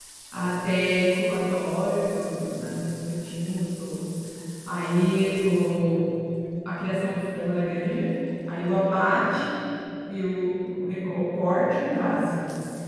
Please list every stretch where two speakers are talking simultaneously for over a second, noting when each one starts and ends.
none

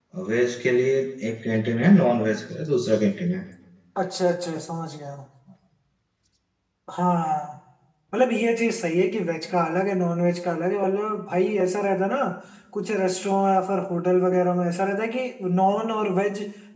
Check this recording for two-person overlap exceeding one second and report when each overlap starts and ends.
none

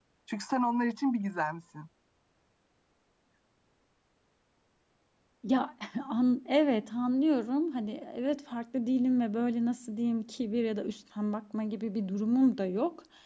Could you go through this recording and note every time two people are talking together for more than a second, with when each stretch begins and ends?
none

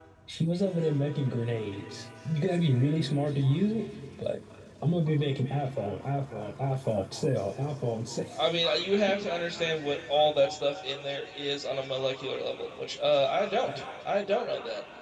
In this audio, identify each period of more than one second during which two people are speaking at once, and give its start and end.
none

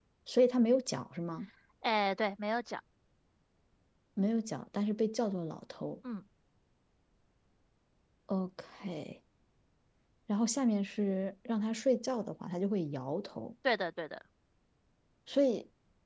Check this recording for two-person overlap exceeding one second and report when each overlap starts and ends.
none

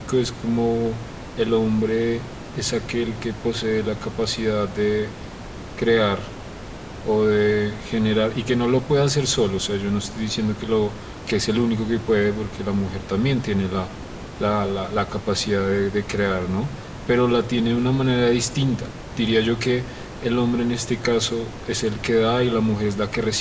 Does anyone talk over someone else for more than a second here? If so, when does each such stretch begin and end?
none

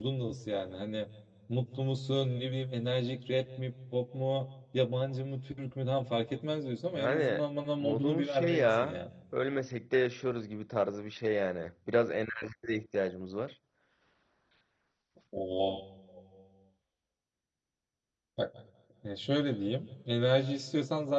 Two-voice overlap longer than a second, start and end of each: 7.8-9.0

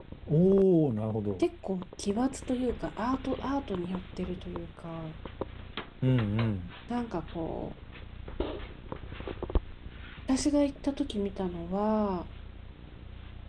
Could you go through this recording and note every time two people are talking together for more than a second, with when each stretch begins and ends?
none

